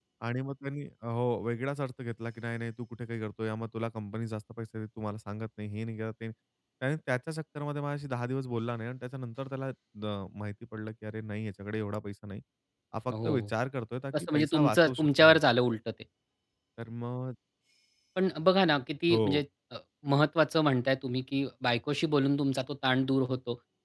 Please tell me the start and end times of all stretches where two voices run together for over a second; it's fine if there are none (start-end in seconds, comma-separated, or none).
14.2-15.4